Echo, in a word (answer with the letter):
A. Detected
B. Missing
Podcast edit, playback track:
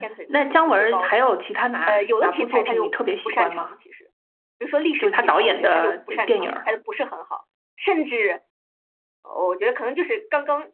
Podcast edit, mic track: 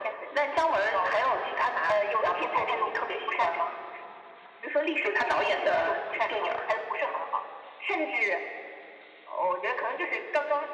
A